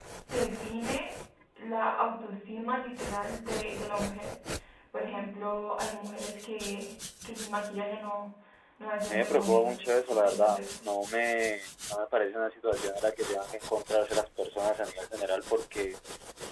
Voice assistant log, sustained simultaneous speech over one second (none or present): present